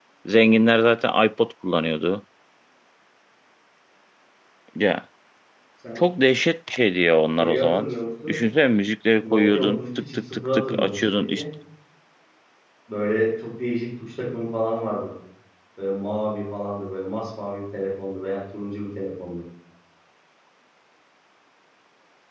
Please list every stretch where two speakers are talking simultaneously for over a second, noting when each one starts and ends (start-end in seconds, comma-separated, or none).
9.2-11.4